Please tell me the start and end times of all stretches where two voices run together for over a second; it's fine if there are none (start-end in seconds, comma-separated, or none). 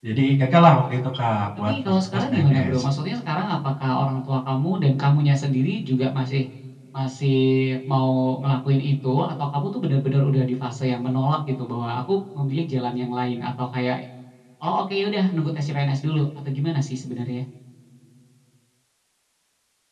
1.6-2.8